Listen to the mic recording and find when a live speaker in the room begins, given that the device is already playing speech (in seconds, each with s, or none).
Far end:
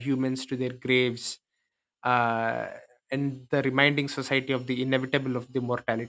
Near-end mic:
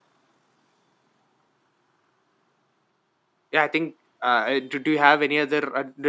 3.5 s